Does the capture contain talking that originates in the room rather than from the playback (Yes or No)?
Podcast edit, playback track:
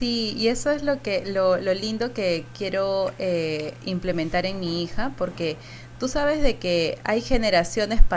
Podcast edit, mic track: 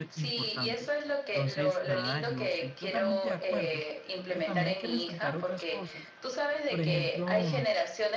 Yes